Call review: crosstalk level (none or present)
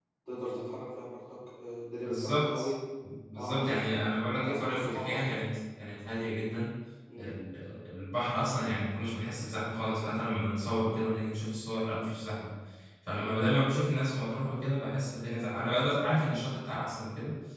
present